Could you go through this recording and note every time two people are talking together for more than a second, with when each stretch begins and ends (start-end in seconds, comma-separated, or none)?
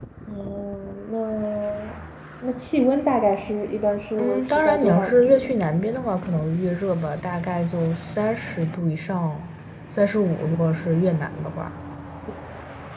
4.2-5.5